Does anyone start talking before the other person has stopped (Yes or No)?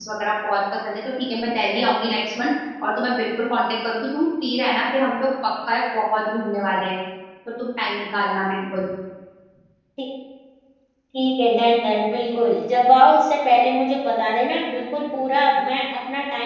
No